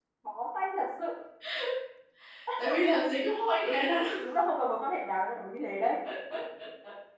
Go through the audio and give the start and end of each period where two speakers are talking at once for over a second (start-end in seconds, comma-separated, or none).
none